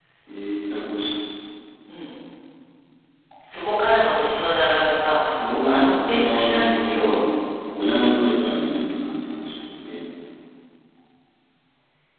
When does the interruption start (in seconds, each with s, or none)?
5.2 s